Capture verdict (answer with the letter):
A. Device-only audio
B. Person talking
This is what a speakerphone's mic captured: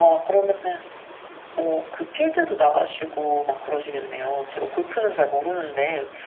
A